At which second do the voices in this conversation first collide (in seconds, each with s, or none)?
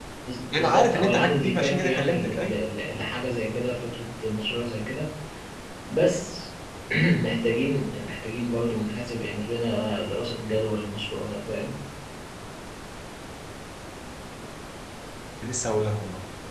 0.6 s